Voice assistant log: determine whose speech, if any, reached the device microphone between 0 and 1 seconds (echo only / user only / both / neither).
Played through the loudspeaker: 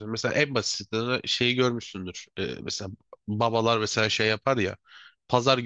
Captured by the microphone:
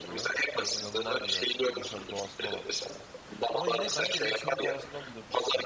both